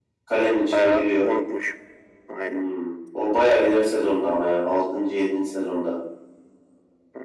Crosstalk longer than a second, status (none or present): none